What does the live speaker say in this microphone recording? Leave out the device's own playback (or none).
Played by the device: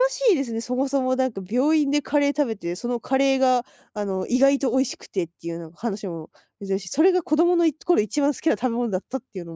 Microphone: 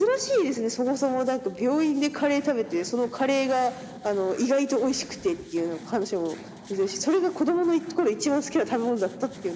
none